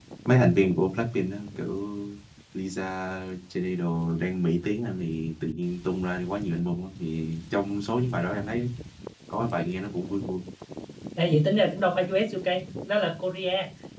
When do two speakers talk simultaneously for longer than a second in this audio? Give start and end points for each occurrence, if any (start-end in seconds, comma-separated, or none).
none